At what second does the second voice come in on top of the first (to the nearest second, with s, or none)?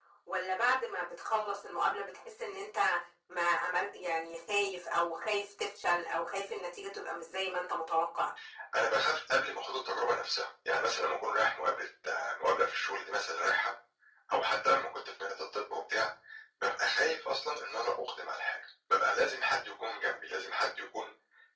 none